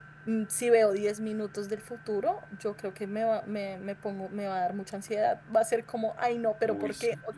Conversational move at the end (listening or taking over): listening